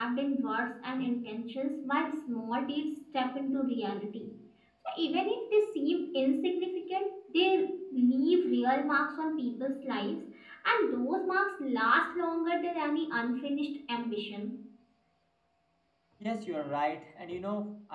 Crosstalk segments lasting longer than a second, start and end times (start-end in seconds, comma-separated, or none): none